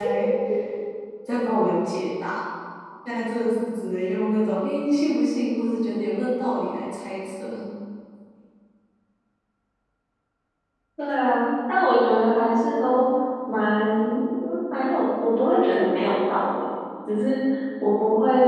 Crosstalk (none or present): none